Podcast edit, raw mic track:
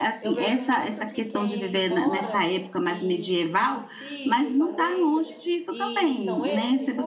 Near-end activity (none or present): present